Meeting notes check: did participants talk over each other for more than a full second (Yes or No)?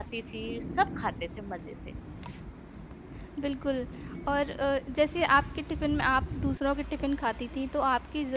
No